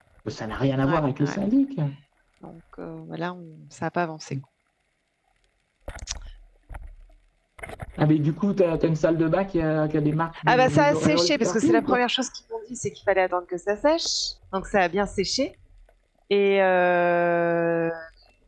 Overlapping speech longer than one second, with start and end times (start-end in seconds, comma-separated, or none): 10.5-12.0